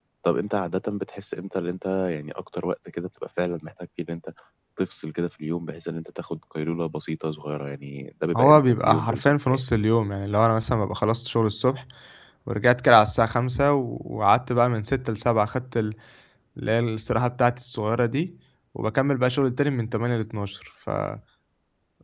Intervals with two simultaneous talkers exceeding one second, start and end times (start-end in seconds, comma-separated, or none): 8.3-9.6